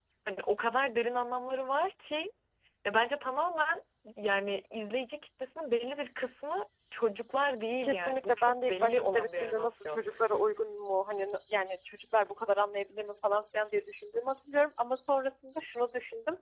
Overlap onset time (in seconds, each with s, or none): 7.8 s